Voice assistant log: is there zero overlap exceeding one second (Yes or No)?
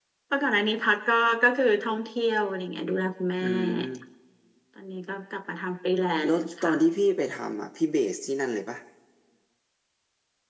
Yes